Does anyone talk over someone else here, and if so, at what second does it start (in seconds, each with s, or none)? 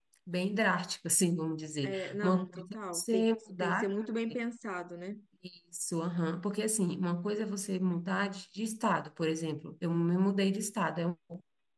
1.8 s